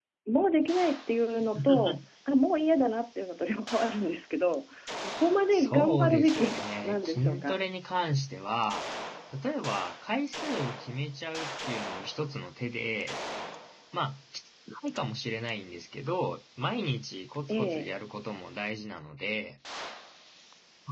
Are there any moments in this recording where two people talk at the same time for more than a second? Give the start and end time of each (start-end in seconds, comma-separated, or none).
5.5-7.6